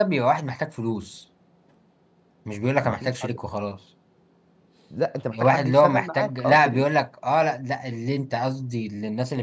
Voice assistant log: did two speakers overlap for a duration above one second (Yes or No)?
Yes